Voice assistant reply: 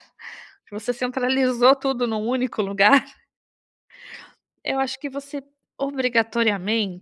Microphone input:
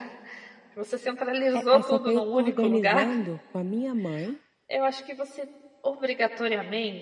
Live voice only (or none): É é, só que aí eu estou organizando com a minha mãe